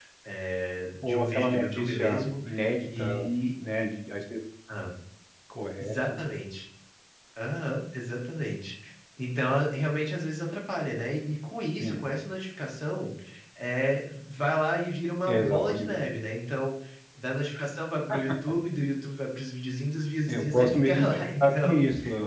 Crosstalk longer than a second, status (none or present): present